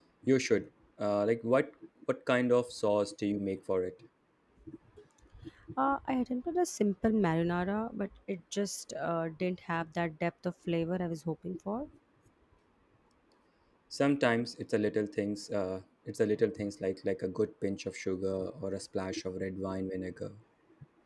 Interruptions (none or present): none